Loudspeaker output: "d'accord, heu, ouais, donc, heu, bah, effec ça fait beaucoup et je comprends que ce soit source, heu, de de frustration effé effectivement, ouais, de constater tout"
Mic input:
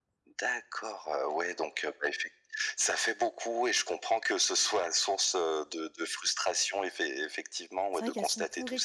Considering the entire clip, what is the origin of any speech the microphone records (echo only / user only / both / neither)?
both